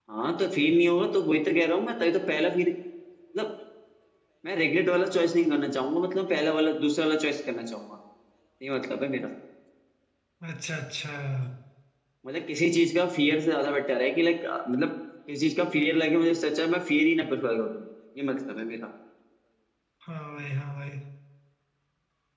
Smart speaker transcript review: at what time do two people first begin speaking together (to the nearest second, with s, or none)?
none